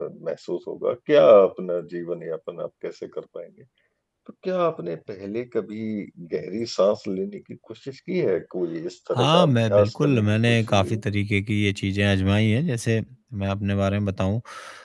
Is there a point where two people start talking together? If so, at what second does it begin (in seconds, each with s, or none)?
9.1 s